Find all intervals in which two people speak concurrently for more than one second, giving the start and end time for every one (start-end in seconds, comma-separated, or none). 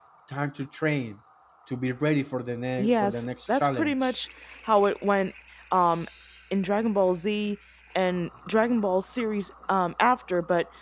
2.8-4.1